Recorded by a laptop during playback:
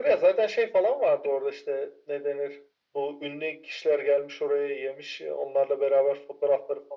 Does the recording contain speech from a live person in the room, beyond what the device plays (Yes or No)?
No